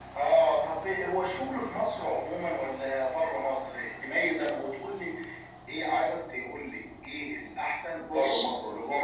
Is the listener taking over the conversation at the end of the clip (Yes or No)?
No